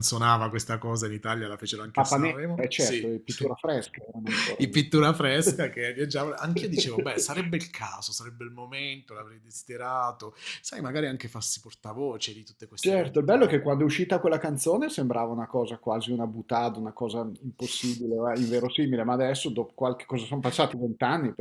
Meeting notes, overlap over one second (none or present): present